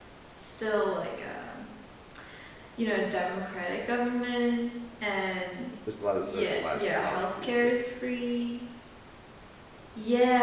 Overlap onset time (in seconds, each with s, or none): 6.2 s